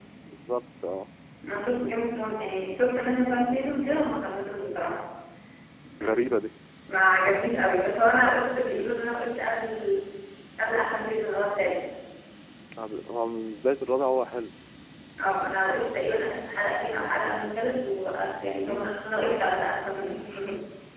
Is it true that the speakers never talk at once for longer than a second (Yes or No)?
Yes